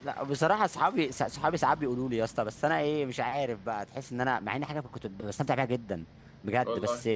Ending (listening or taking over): listening